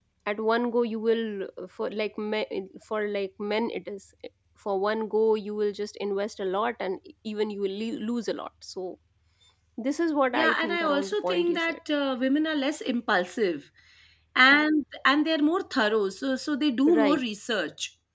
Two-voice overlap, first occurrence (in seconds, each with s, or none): 10.3 s